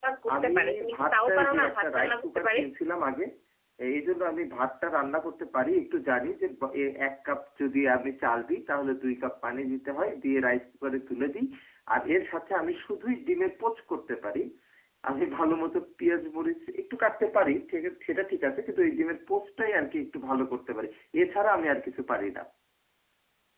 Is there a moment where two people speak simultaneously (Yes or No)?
Yes